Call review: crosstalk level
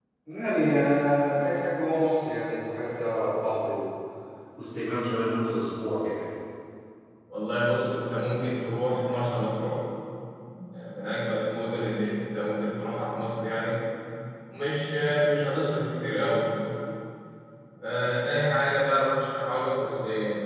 none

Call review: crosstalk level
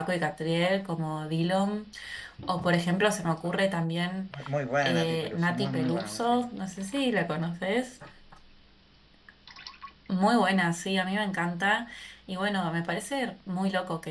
present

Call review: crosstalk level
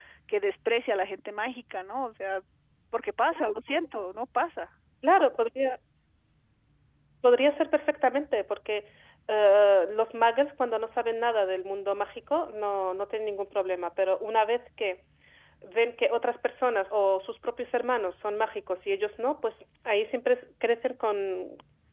none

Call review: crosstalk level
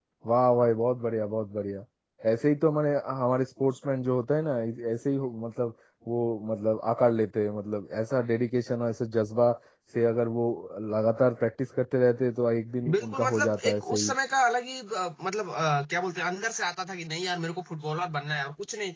present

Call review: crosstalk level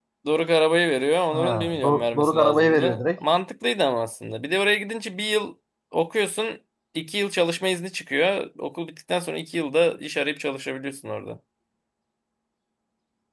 present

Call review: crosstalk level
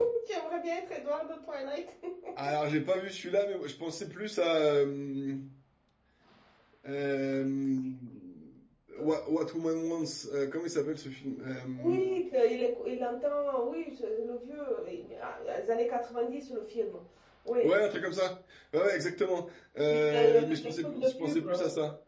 present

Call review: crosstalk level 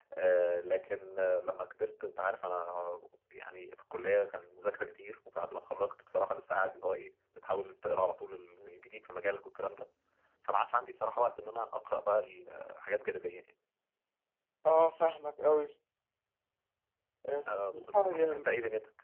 present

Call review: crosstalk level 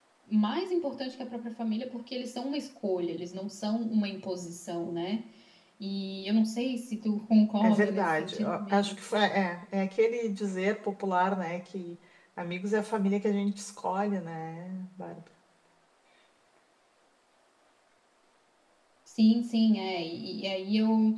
present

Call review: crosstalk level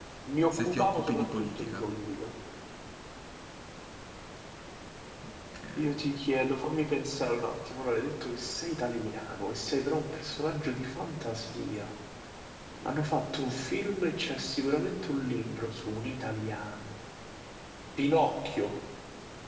present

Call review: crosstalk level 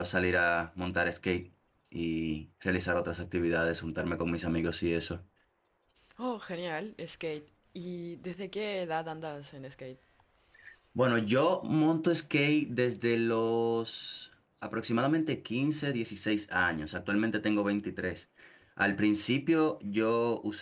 none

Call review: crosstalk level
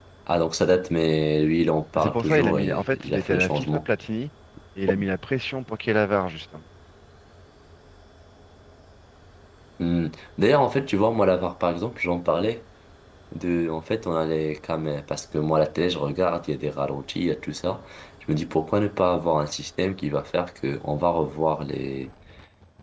present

